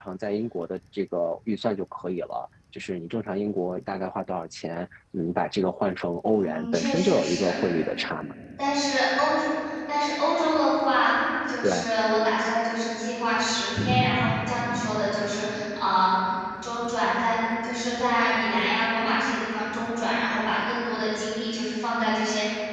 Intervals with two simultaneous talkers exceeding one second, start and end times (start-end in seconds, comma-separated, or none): 6.3-7.5